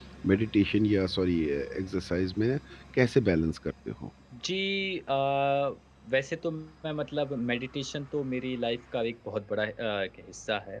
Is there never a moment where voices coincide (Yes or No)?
Yes